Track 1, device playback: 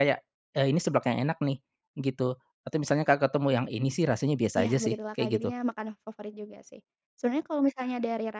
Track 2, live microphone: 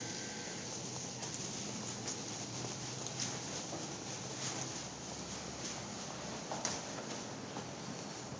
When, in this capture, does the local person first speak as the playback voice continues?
none

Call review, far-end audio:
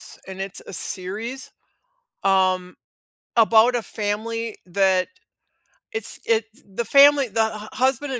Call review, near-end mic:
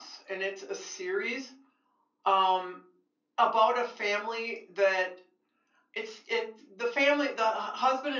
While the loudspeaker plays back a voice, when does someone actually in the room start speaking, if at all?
none

